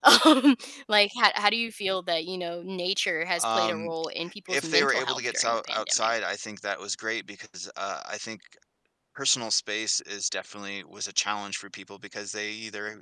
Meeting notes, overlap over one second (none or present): present